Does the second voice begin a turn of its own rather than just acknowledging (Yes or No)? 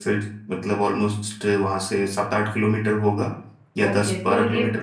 Yes